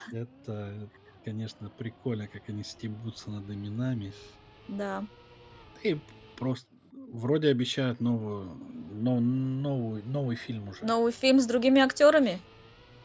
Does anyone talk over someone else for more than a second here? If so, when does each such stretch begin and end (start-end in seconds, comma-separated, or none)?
none